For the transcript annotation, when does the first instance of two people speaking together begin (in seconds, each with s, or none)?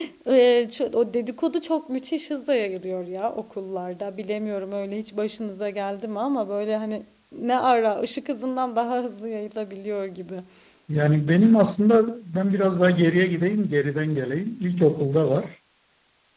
none